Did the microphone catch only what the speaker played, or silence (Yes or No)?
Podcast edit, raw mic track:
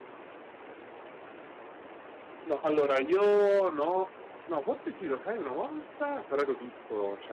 No